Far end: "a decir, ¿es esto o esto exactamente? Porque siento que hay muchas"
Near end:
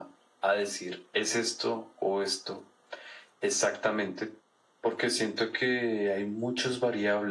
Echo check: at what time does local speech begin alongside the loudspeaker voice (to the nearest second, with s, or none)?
none